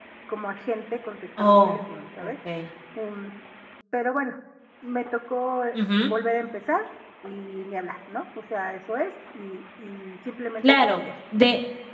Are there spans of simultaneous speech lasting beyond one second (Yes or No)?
No